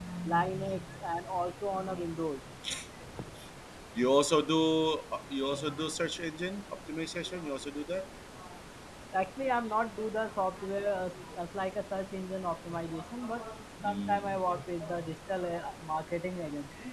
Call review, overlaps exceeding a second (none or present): present